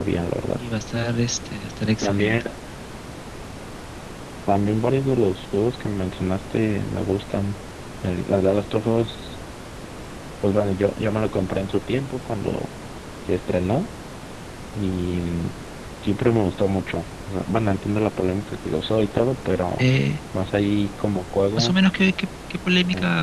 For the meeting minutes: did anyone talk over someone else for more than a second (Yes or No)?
No